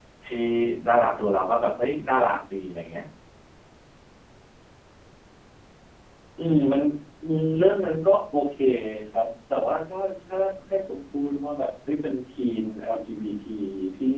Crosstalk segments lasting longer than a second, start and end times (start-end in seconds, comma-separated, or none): none